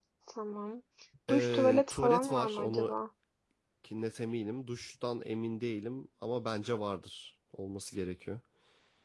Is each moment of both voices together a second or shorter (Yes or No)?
No